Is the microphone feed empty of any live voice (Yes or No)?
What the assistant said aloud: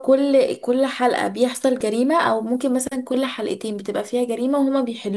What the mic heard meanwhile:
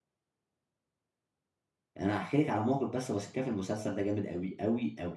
No